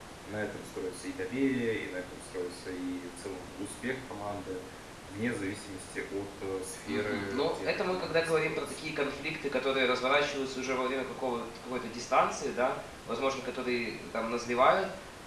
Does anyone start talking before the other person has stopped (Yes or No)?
Yes